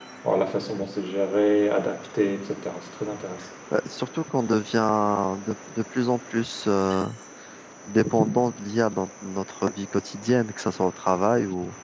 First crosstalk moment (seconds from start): none

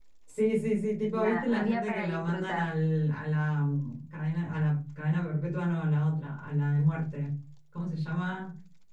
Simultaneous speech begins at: 1.1 s

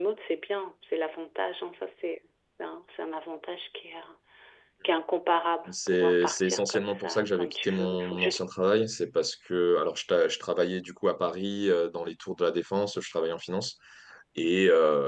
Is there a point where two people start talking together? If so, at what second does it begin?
5.7 s

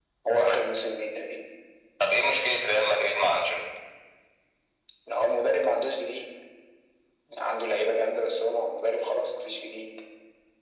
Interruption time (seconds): none

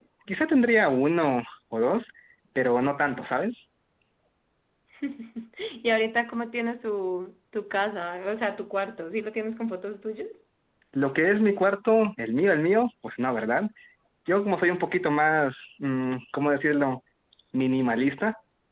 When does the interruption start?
none

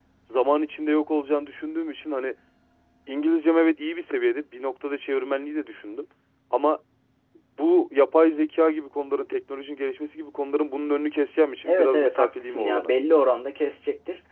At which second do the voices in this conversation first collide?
11.7 s

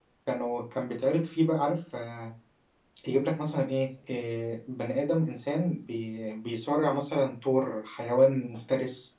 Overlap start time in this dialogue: none

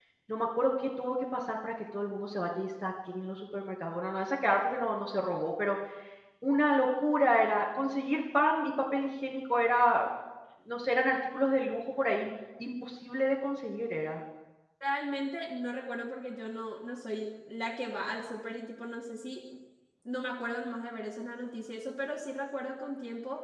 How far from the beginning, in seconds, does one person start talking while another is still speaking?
none

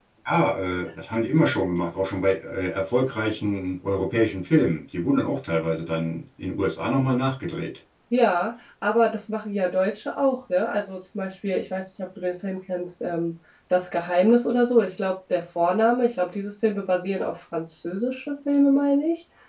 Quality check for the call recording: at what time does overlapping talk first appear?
none

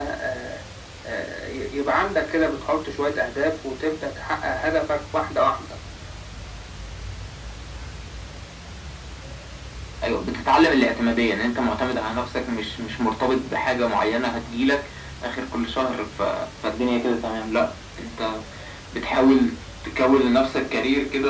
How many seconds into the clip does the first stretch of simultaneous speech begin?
none

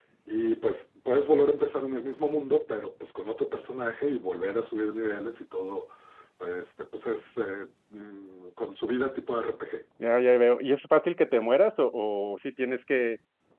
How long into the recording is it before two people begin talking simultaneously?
none

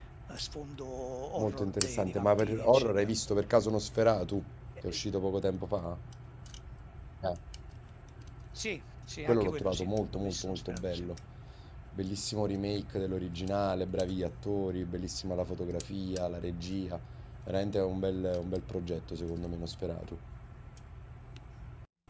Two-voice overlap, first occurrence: 1.4 s

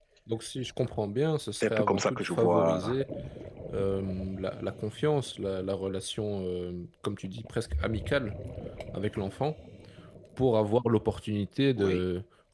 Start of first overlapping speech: 1.6 s

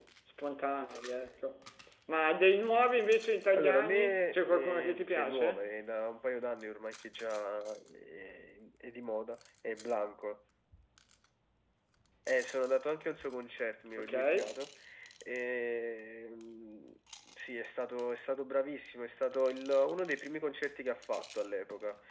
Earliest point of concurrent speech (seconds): 3.6 s

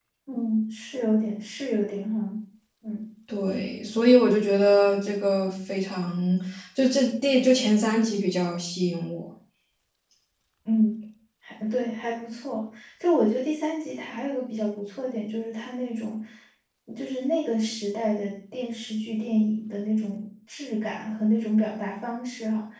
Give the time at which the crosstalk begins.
none

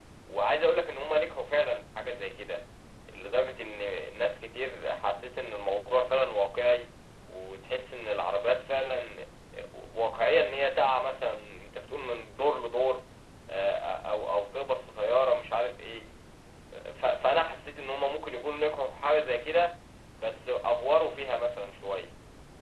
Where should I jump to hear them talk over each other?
none

